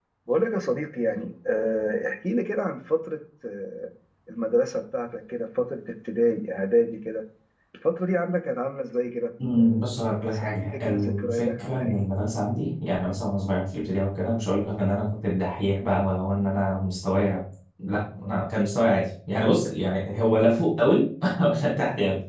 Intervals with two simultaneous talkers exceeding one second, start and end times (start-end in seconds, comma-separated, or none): 9.5-12.0